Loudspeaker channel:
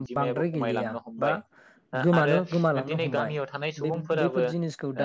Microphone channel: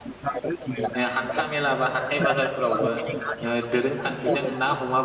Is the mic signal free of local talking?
No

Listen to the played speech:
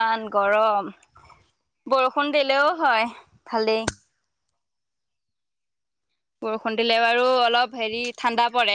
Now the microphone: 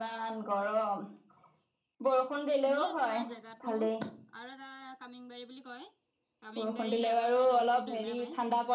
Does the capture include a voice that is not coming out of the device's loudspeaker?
Yes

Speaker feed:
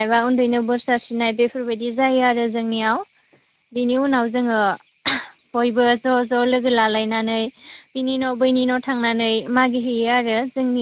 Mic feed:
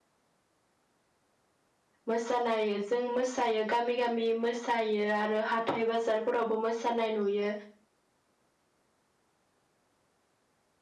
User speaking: Yes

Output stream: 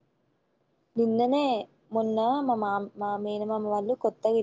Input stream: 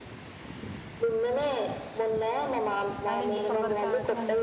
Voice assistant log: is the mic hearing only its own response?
No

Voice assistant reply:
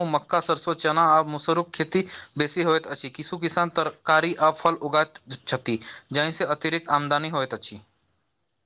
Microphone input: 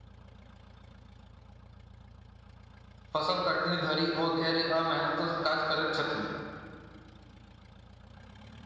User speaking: Yes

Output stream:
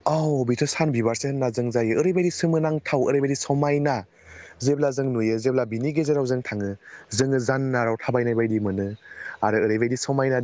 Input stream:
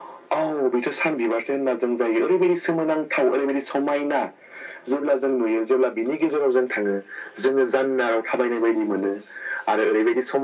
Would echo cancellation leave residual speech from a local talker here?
No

